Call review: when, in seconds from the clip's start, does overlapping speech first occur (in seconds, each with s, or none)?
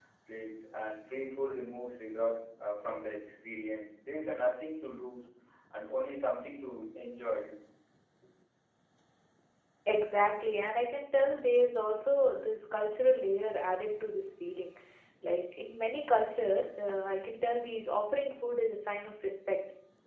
none